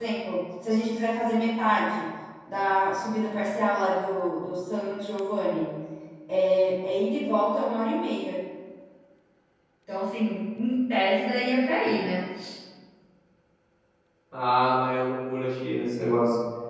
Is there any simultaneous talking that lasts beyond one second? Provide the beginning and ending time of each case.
none

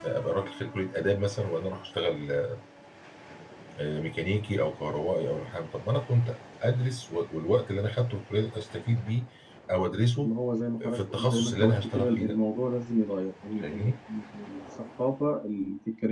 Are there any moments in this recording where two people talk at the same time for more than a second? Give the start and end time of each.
10.9-12.4

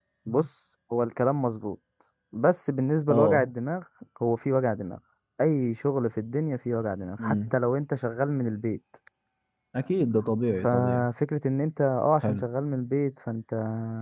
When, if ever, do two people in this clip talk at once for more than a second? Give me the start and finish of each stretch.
none

